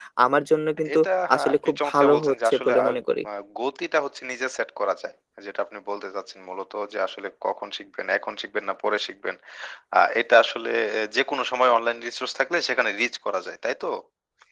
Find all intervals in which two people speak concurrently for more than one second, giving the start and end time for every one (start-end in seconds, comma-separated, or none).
1.4-2.9